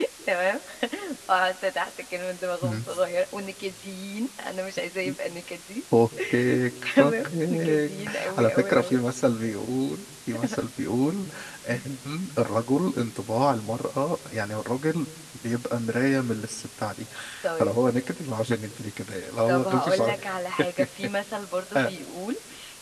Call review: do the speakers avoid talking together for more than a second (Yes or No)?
No